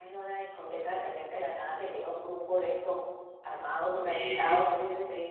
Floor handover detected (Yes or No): No